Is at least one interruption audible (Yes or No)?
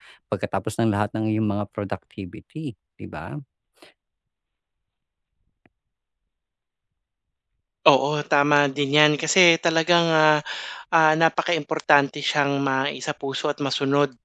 No